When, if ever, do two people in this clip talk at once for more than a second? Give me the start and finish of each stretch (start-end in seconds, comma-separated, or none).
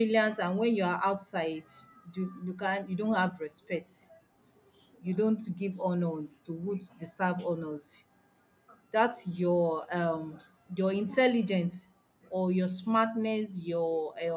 none